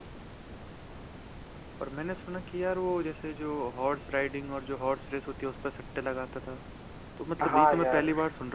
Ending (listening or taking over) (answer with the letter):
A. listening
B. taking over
A